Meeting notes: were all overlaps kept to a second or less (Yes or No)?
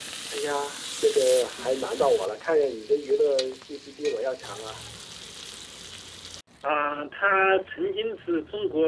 Yes